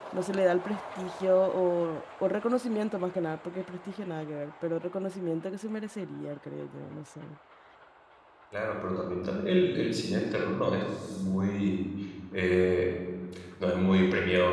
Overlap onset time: none

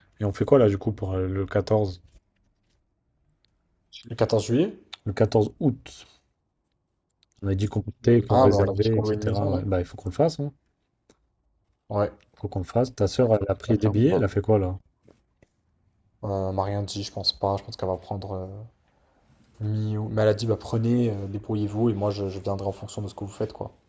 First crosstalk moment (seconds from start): 8.3 s

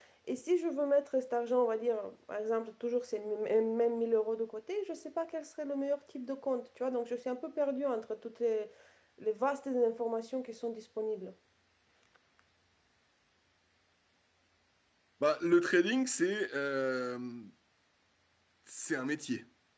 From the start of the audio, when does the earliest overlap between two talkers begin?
none

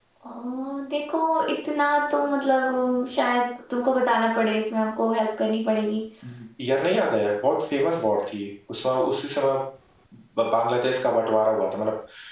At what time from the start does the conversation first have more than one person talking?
none

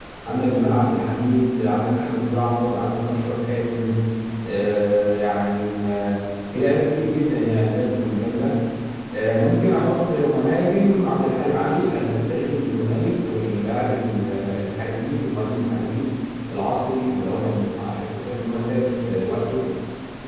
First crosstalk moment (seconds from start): none

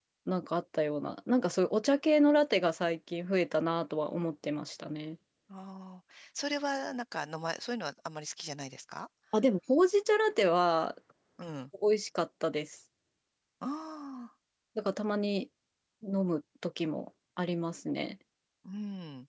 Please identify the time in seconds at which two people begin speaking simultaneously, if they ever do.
none

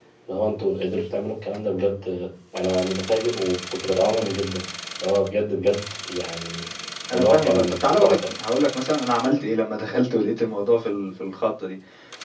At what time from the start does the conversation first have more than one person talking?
7.1 s

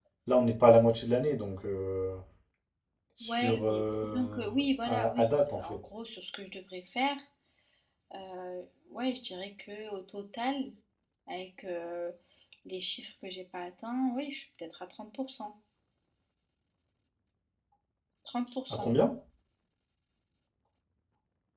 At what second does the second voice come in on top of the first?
3.2 s

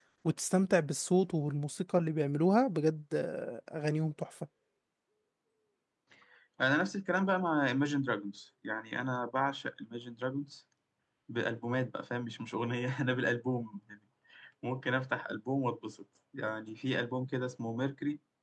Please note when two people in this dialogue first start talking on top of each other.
none

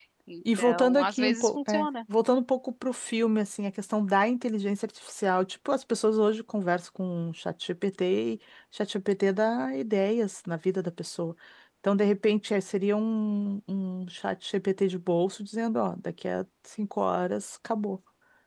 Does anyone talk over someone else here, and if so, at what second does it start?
0.6 s

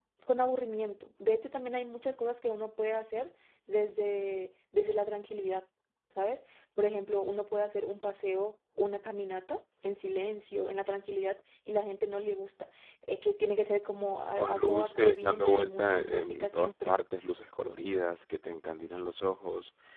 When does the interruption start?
14.3 s

